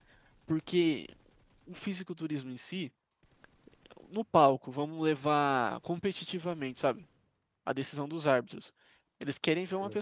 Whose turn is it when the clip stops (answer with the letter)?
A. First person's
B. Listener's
A